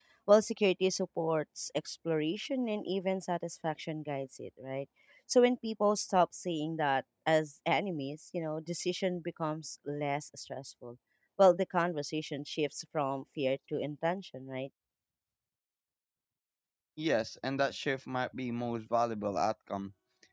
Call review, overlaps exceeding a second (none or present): none